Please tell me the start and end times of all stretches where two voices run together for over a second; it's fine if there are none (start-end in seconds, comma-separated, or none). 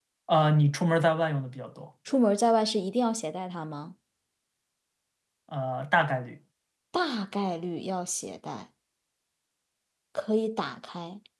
none